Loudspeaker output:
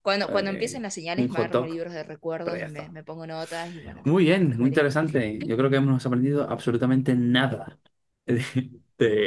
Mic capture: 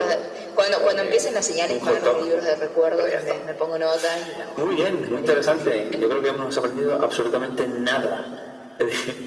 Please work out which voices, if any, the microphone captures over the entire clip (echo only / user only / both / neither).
echo only